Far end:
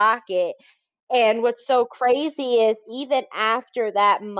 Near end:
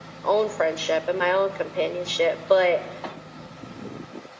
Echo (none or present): none